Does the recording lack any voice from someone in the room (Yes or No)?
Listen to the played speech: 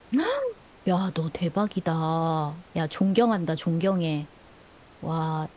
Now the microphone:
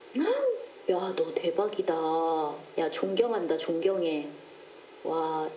Yes